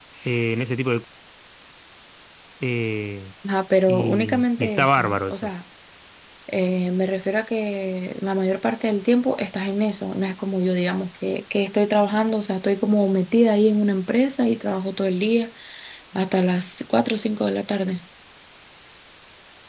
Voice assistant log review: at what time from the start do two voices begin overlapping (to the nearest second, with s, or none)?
4 s